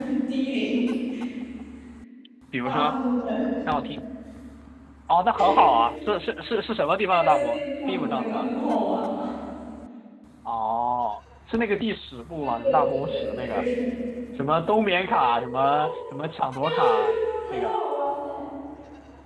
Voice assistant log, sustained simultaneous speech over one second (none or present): present